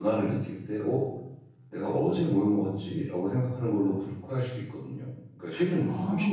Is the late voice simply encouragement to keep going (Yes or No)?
Yes